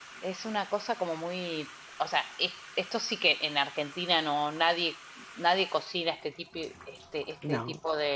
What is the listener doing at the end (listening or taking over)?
listening